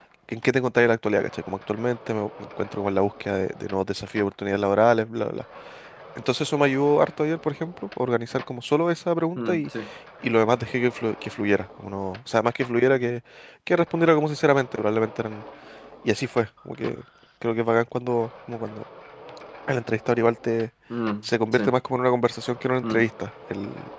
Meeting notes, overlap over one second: none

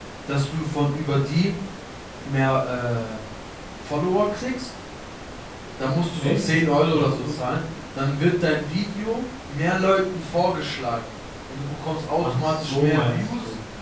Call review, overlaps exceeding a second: present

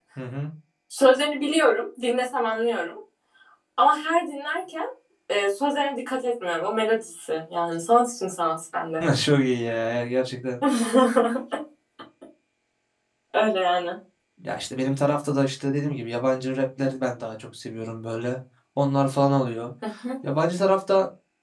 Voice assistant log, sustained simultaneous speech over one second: none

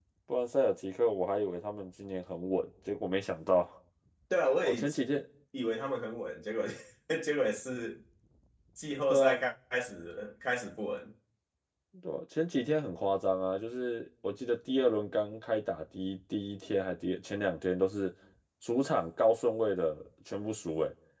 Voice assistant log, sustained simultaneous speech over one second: none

